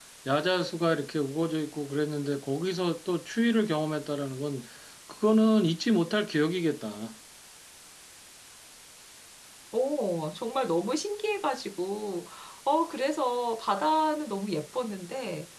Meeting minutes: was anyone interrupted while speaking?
No

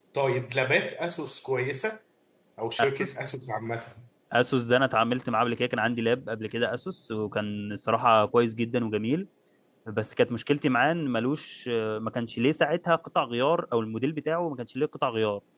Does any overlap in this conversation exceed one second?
No

